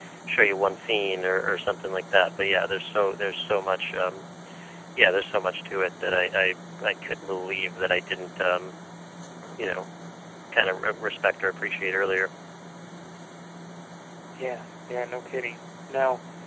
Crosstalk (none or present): none